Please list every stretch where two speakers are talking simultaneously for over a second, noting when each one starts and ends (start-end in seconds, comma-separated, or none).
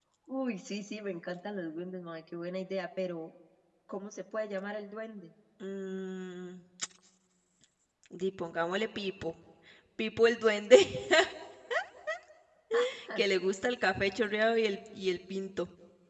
none